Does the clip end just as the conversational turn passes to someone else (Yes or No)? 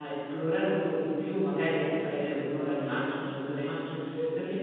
No